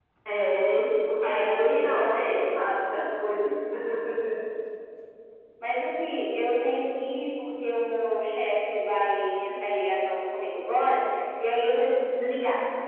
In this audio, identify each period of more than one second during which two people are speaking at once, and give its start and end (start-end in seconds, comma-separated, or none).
1.2-2.6